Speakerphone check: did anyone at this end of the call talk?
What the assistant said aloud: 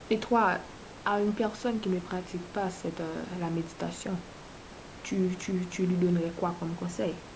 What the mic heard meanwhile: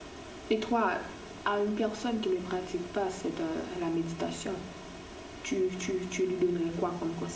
No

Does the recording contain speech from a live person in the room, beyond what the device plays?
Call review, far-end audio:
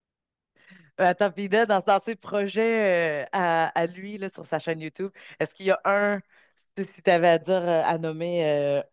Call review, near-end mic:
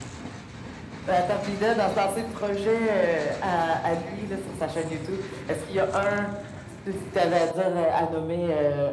No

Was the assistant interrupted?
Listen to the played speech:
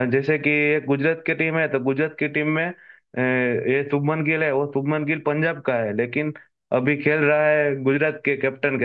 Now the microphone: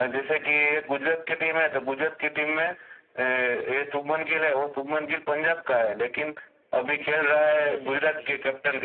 Yes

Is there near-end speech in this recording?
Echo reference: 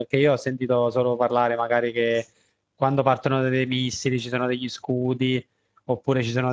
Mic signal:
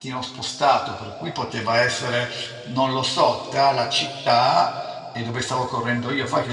Yes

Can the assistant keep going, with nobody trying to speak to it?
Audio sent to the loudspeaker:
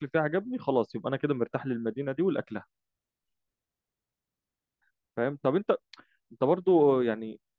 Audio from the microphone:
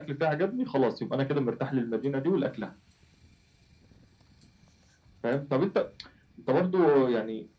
Yes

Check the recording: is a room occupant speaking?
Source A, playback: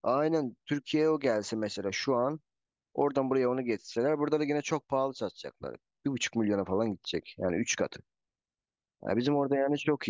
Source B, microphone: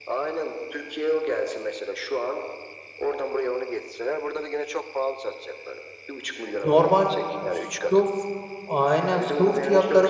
Yes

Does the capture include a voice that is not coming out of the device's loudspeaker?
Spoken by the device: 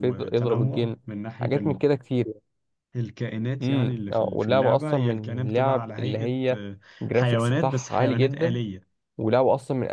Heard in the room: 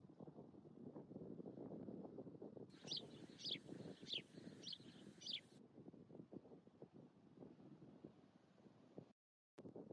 No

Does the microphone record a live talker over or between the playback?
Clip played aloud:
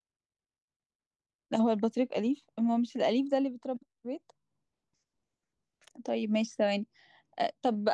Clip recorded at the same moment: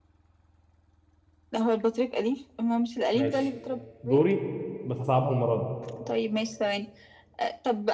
Yes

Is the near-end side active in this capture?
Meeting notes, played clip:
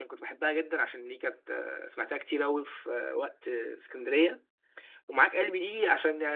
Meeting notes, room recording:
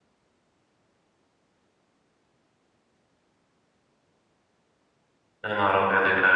Yes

